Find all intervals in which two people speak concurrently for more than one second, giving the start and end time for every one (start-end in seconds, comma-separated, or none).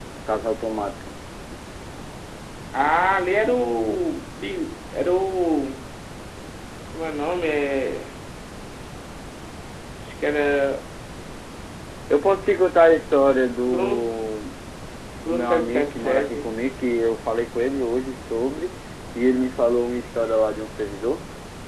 15.2-16.4